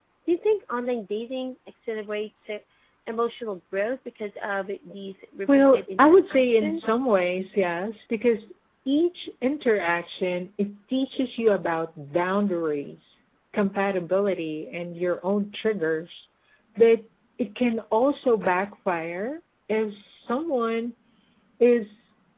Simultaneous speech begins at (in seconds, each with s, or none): 5.6 s